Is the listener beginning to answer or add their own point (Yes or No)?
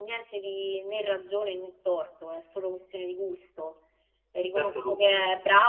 No